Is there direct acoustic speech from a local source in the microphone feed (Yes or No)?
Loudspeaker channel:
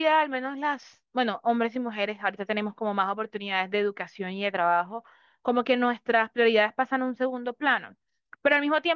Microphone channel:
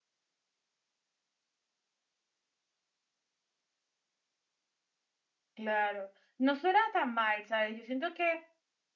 Yes